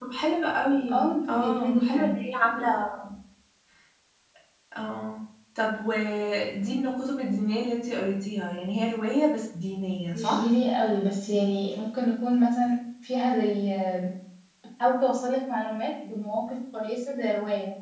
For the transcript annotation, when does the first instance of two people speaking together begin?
0.9 s

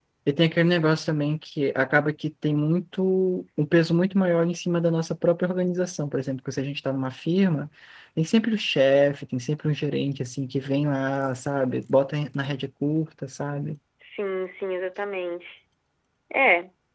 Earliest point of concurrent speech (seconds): none

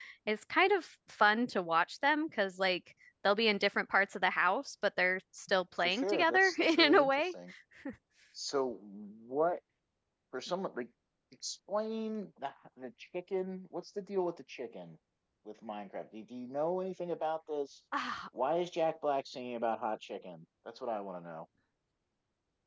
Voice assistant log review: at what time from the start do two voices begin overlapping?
5.8 s

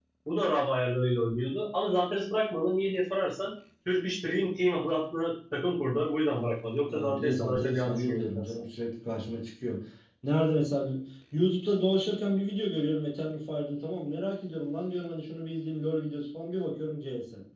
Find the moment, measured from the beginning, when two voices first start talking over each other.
6.9 s

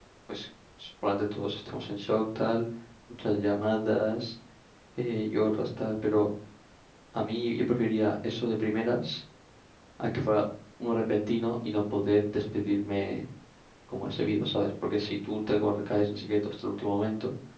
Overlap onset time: none

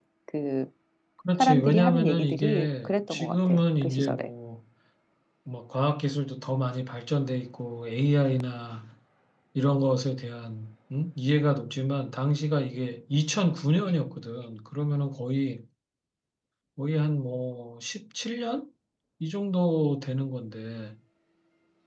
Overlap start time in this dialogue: 1.3 s

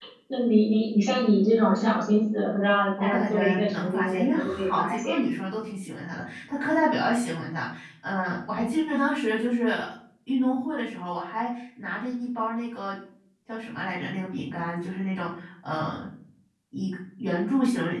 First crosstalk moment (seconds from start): 3.0 s

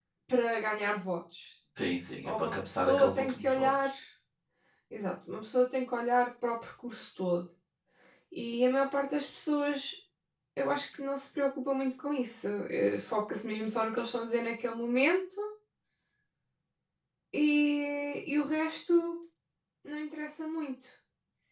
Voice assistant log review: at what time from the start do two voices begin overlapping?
2.2 s

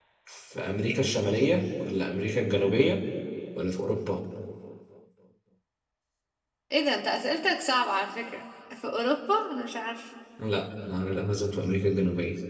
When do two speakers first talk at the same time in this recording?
none

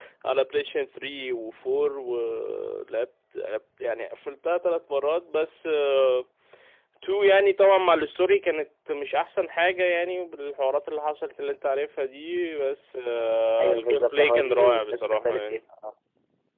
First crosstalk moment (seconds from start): 13.6 s

